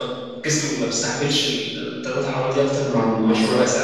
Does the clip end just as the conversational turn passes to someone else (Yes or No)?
Yes